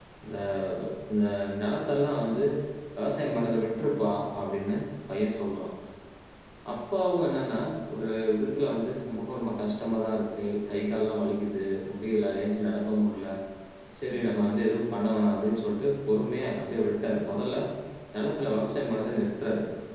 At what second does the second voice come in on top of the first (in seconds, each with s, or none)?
none